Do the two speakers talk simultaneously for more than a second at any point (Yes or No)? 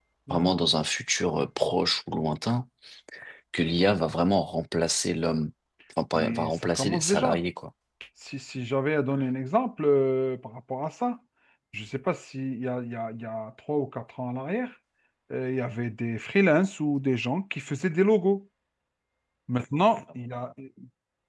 Yes